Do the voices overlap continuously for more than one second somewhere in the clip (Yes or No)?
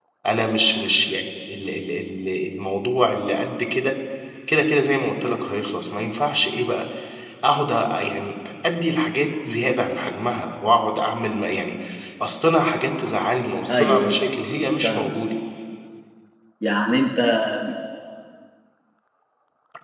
No